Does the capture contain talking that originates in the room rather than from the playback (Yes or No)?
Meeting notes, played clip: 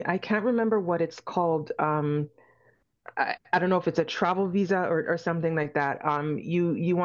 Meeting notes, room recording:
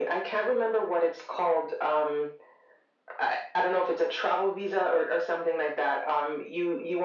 No